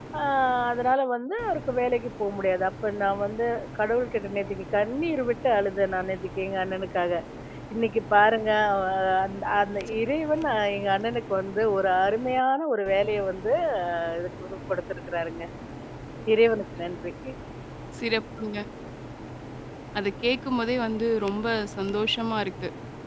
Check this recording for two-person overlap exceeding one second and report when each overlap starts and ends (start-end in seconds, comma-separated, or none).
none